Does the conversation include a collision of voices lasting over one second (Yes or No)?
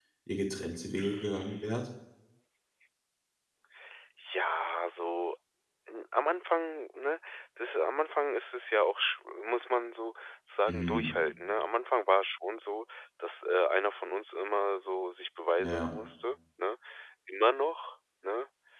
No